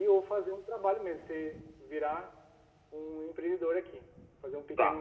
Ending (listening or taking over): taking over